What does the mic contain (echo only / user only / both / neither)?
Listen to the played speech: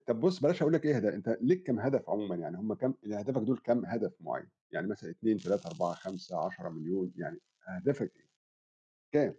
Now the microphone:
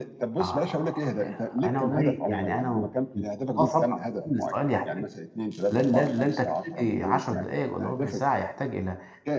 both